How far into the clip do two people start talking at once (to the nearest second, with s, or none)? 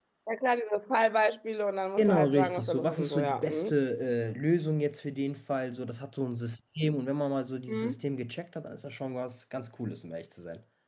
2 s